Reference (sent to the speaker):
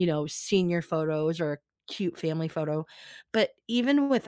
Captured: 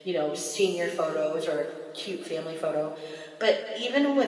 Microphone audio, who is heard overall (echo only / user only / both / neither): echo only